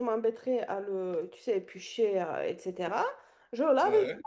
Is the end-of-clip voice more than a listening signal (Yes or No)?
No